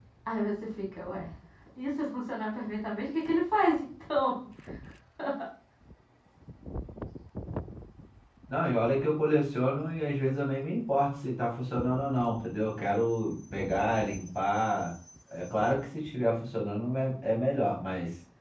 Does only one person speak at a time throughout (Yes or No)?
Yes